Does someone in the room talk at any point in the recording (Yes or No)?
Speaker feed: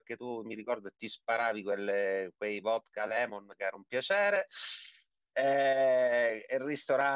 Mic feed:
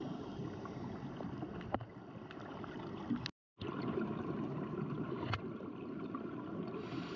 No